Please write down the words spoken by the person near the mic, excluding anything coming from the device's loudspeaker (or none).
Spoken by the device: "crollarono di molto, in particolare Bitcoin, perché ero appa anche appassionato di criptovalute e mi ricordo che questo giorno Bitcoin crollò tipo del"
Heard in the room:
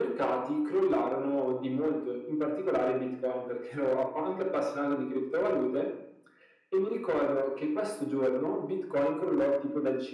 none